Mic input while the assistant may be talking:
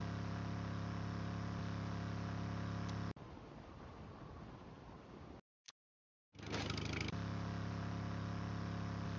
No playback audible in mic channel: Yes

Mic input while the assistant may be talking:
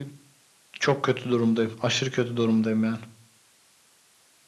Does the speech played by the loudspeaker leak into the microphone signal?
Yes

